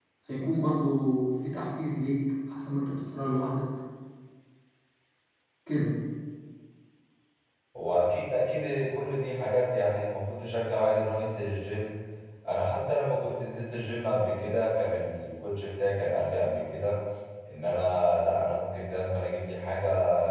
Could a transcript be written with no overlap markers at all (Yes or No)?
Yes